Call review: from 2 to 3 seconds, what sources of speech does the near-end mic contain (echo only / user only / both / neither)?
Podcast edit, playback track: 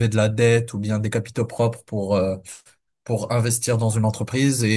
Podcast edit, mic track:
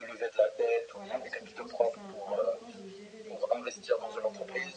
both